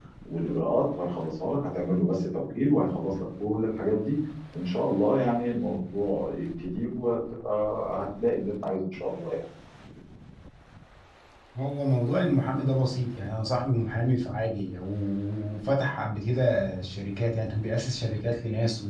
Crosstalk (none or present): none